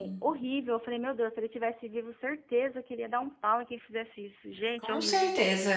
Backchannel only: No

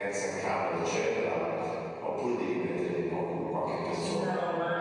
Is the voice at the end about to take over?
Yes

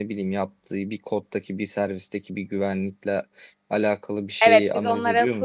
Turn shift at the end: Yes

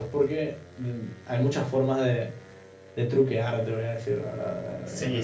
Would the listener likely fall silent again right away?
No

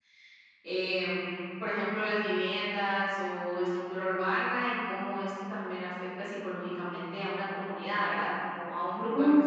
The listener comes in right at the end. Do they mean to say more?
Yes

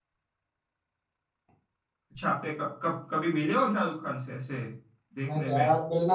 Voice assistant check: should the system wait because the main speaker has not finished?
No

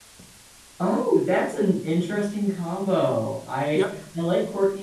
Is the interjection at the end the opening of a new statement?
No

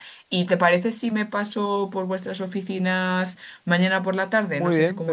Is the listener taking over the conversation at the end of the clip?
Yes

